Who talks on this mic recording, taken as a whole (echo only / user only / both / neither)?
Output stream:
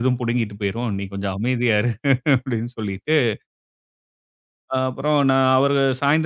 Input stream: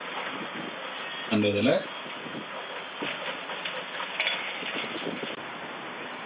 user only